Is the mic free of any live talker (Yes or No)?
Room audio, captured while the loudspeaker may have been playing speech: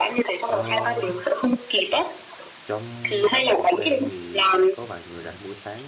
No